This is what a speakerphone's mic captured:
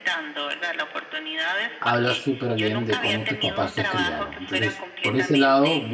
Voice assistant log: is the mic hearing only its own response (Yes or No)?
No